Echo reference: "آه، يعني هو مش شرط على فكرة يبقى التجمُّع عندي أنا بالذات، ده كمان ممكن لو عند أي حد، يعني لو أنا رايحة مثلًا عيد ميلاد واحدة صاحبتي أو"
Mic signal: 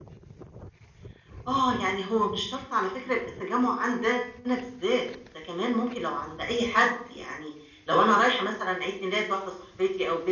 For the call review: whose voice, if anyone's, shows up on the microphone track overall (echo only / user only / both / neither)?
echo only